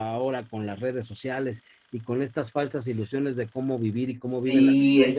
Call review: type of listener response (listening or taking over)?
taking over